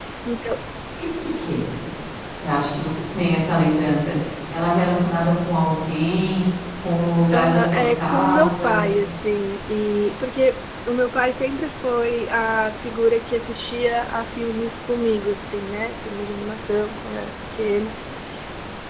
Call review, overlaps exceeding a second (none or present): present